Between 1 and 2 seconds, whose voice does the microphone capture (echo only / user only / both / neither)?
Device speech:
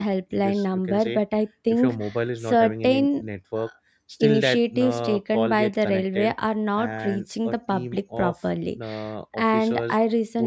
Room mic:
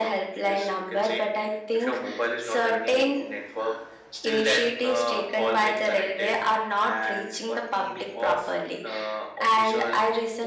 echo only